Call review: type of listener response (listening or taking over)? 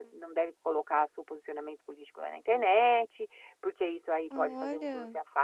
listening